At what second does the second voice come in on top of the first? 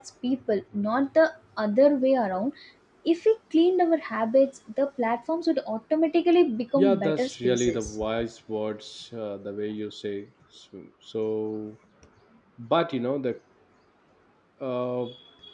6.8 s

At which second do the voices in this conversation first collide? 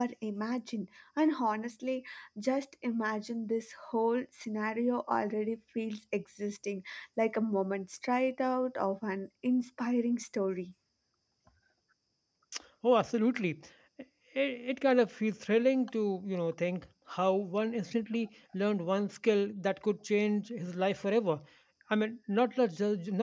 none

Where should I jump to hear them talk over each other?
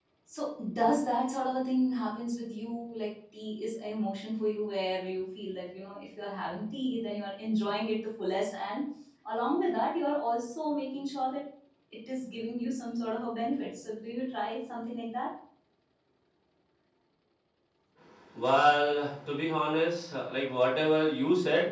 none

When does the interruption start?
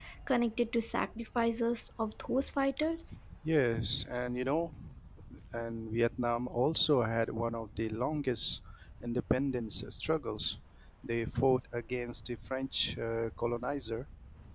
none

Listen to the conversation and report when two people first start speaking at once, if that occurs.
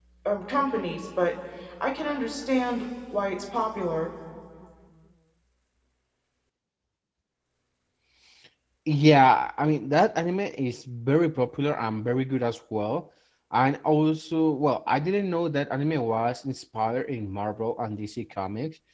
none

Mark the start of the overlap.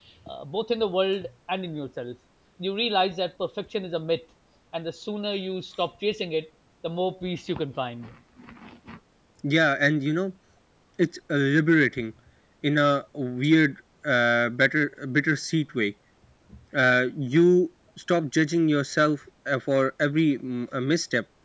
none

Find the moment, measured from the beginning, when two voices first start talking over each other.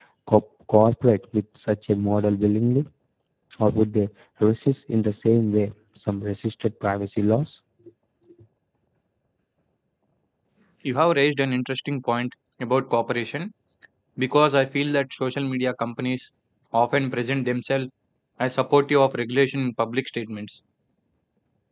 none

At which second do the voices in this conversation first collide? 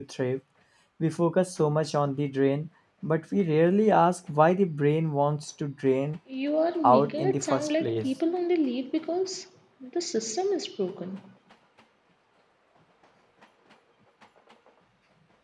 6.8 s

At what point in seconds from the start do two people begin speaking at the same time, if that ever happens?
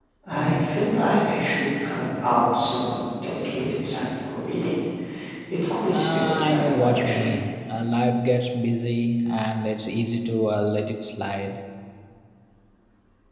5.9 s

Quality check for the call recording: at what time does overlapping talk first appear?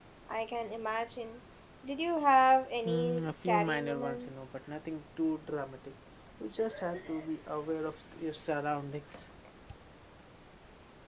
2.9 s

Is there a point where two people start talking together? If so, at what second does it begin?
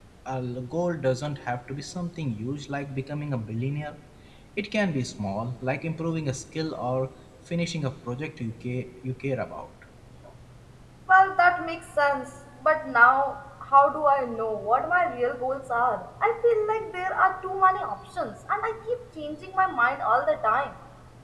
none

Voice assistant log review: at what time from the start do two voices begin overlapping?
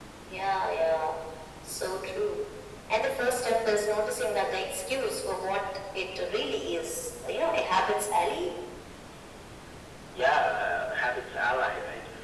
none

